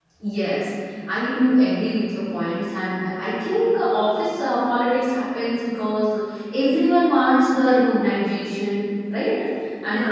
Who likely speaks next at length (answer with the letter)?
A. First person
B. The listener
A